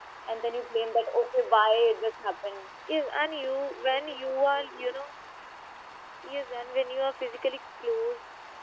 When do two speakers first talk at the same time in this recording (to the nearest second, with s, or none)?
none